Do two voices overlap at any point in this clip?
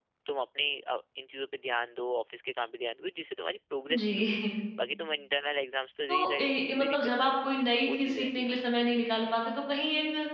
Yes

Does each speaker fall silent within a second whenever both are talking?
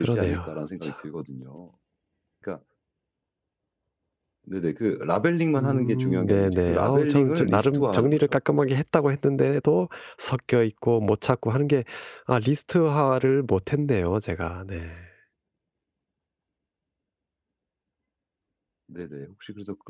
No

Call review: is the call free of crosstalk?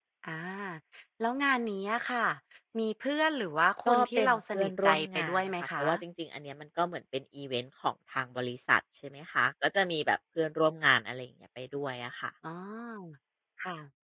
No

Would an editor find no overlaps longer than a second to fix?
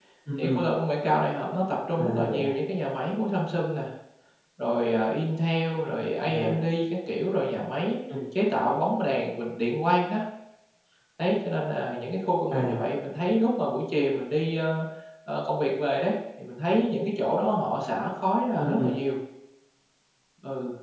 Yes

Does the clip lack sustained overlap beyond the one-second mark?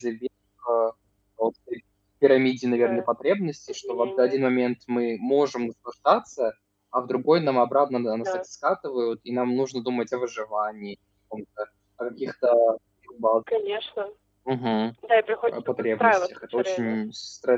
No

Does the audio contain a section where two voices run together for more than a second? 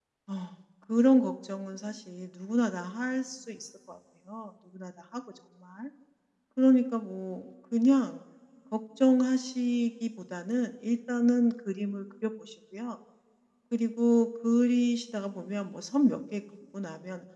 No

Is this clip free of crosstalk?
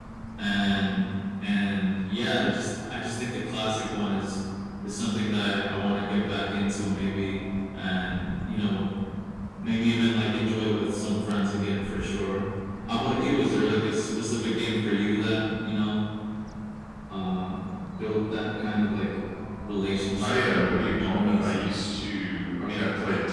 No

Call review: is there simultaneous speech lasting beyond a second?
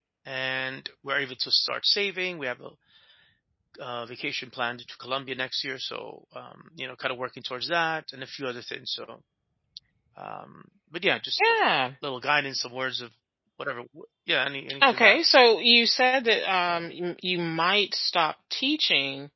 No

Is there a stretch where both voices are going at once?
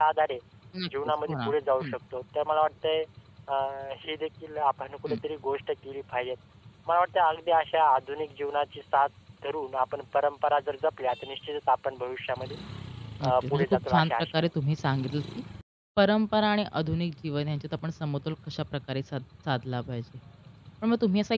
Yes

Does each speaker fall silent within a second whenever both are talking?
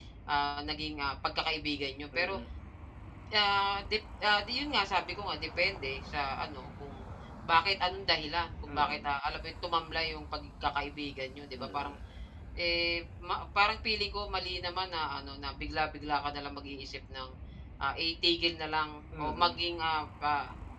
Yes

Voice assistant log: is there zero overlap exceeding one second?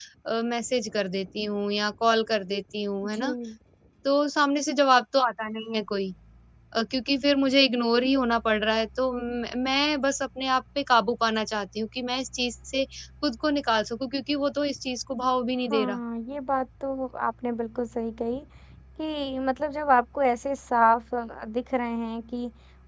Yes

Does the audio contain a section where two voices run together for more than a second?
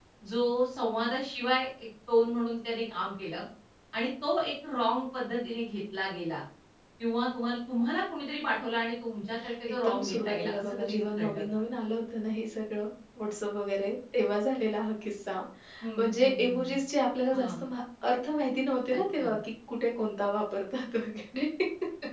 Yes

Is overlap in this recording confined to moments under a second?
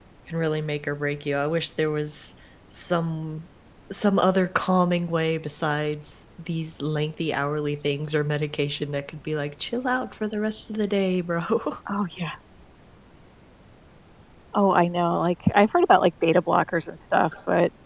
Yes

